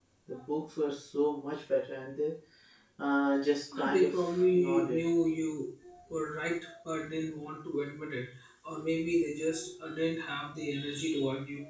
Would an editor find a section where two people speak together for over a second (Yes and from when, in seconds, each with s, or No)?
Yes, from 3.8 s